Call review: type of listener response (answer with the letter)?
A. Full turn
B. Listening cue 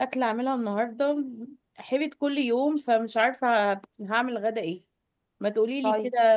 B